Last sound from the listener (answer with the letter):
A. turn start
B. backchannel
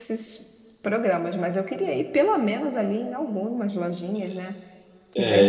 A